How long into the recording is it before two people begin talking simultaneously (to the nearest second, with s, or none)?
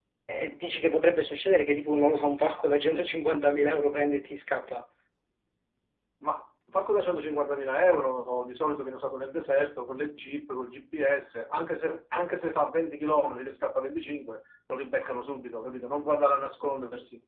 none